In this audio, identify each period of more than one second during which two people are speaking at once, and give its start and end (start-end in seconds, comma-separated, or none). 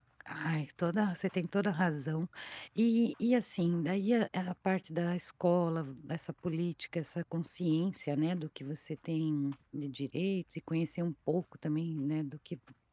none